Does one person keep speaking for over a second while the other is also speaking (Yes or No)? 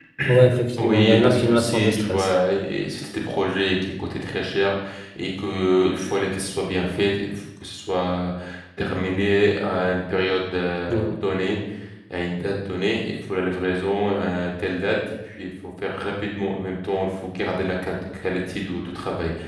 Yes